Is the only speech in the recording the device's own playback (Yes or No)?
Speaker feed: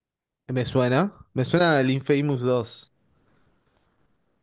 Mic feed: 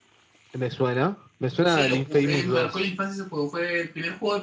No